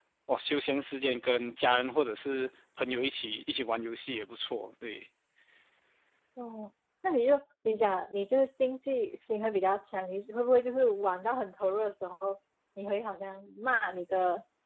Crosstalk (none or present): none